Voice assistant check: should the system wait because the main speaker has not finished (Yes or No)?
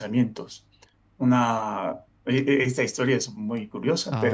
Yes